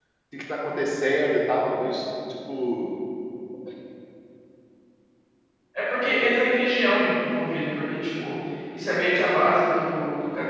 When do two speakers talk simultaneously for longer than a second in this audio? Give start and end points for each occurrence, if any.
none

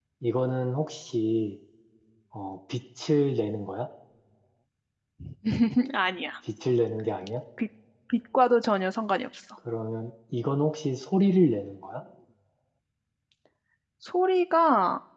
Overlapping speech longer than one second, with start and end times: none

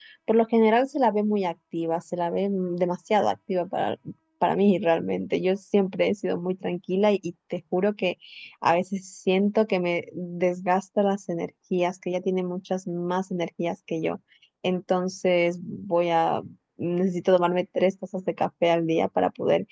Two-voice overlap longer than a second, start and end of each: none

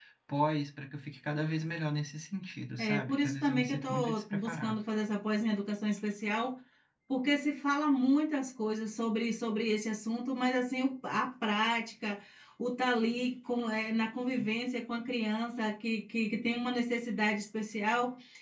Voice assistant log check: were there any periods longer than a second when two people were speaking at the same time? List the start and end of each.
2.8-4.8

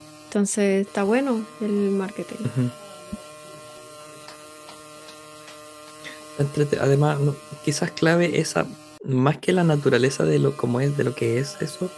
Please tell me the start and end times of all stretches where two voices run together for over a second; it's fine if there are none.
none

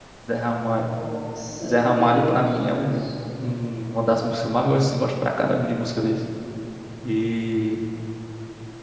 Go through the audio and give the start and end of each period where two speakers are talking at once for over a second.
1.6-3.1

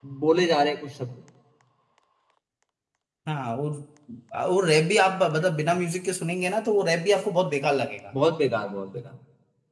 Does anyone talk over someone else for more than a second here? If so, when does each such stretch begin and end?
none

